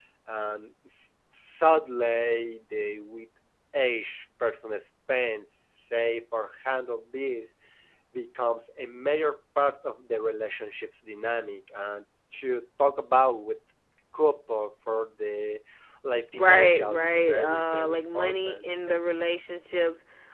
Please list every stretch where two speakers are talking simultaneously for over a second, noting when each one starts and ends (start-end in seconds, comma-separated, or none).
16.3-18.6